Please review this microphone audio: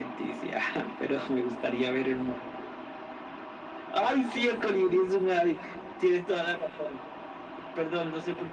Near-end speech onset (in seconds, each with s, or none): none